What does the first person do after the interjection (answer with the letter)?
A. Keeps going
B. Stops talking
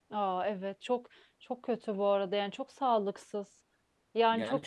B